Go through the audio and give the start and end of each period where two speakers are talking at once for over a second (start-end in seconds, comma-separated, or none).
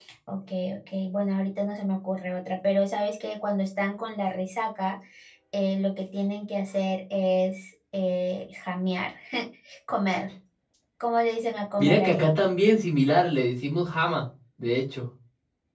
none